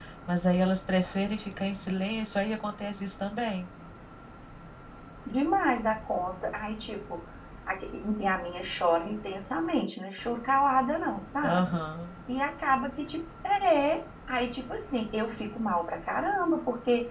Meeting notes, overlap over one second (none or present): none